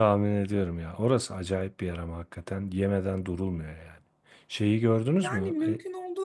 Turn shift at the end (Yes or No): Yes